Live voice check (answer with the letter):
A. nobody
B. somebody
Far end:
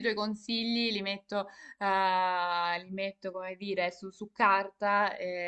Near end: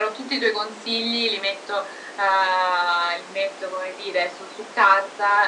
A